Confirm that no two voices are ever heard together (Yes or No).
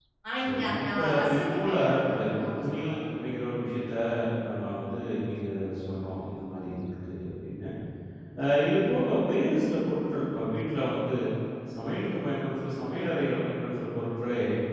No